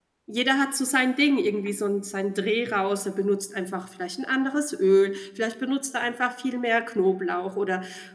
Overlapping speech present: No

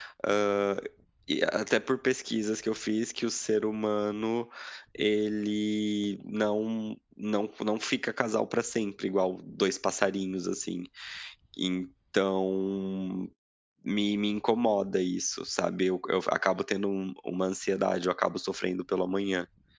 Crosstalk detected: No

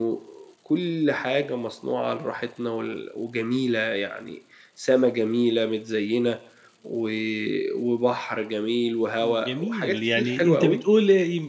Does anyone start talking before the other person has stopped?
Yes, from 9.2 s

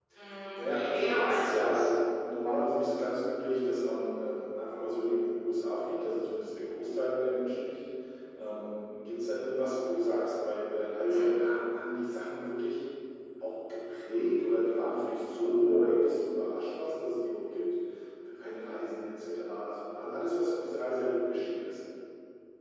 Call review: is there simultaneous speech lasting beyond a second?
Yes, from 0.6 s

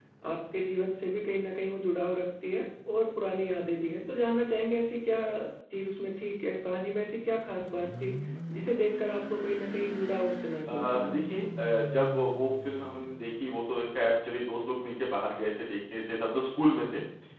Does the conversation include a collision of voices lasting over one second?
No

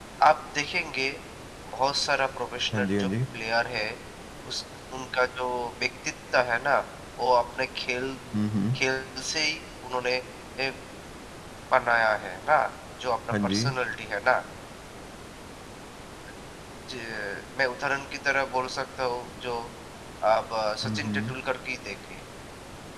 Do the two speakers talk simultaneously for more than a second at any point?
No

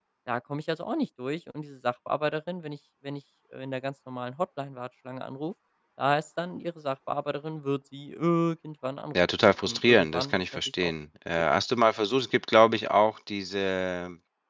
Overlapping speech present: Yes, from 9.2 s

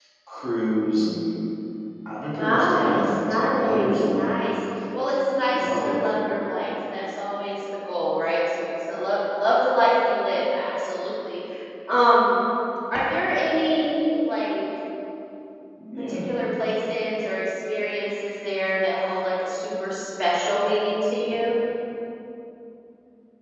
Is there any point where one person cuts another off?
Yes, from 2.3 s

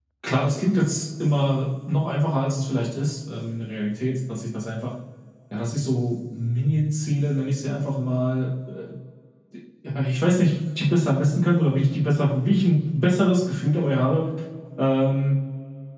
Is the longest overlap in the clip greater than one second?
No

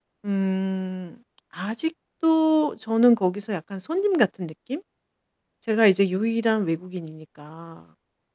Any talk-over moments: No

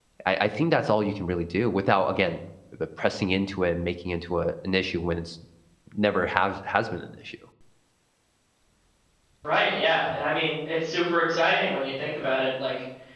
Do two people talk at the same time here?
No

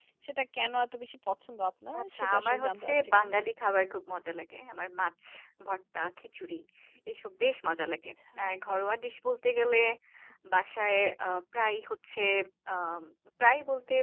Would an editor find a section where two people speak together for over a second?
Yes, from 2.0 s

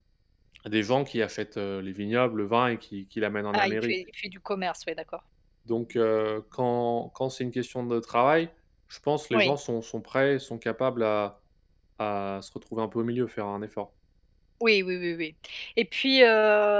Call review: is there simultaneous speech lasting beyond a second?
No

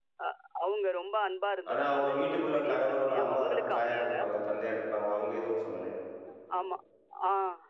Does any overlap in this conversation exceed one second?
Yes, from 1.7 s

